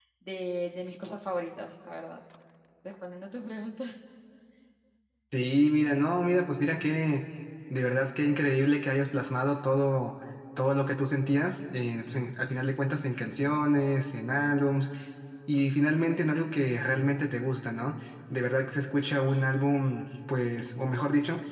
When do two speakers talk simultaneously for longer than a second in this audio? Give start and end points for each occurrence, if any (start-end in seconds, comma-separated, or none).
none